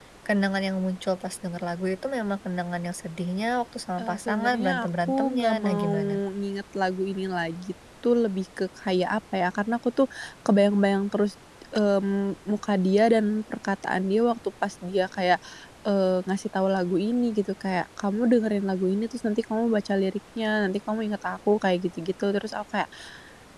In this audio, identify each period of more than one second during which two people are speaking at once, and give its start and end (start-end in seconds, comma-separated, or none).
4.0-5.9